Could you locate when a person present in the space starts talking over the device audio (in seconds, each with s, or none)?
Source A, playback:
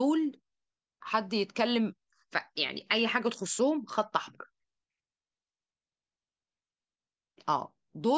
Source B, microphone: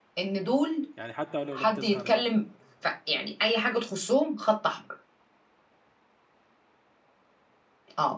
0.9 s